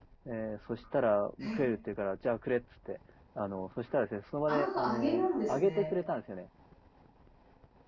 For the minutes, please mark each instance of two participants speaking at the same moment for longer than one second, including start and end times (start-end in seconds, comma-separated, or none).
4.5-5.8